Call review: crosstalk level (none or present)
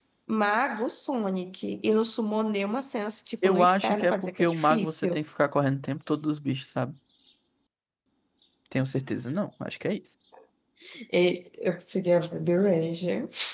present